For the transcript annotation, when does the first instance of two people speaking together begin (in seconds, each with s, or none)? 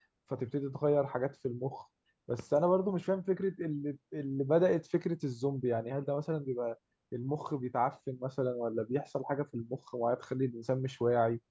none